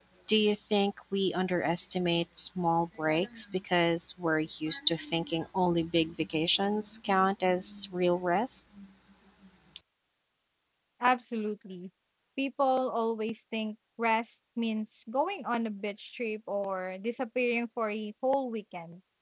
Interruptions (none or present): none